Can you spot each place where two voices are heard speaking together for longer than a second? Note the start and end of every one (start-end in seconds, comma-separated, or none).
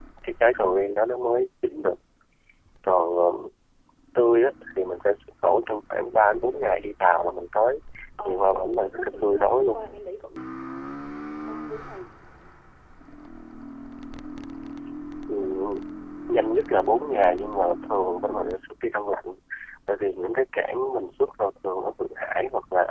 8.2-9.8